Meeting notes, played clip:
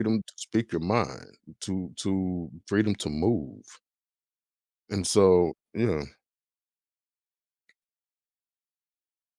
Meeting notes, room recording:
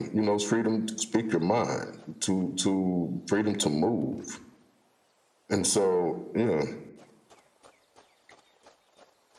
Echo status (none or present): present